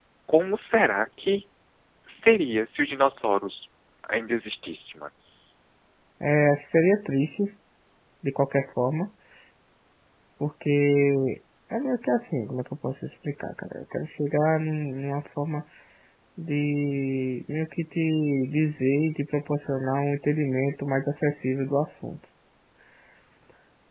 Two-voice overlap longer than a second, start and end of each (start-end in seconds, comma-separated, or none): none